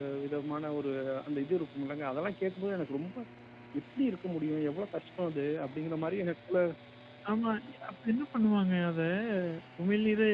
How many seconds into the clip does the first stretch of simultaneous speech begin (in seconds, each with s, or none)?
none